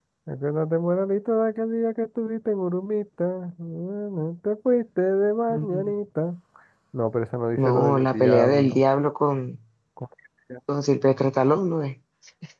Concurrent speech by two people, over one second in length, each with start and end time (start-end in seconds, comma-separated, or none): 7.6-8.8